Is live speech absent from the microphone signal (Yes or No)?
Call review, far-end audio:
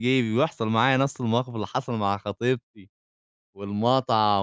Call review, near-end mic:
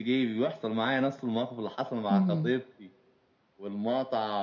No